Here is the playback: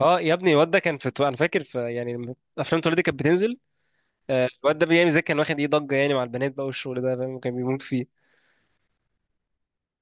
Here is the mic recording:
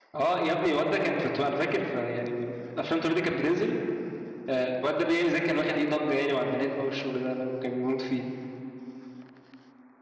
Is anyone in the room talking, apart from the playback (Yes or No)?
No